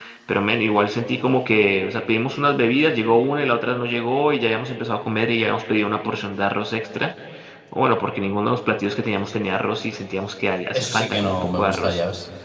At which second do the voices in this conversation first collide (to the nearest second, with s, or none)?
11 s